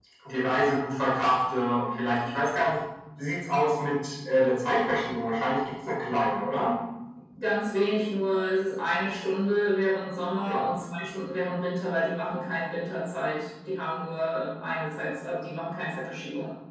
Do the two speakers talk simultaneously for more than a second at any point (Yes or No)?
No